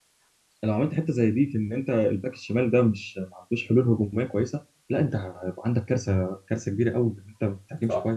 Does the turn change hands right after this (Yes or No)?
Yes